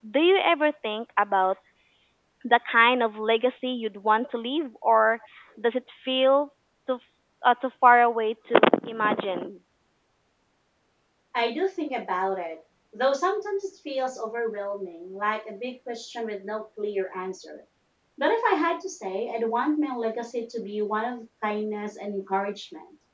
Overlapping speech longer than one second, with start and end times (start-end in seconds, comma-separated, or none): none